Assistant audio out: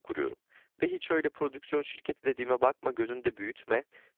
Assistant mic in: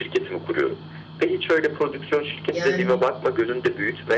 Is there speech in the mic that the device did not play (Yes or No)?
Yes